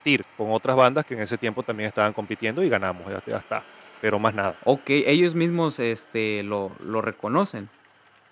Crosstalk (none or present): none